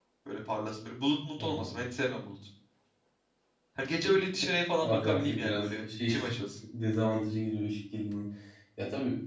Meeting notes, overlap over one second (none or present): present